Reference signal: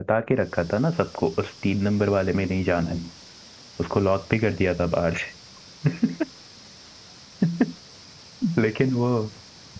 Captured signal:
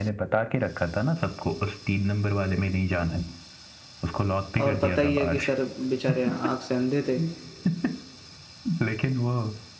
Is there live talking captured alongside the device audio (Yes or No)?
Yes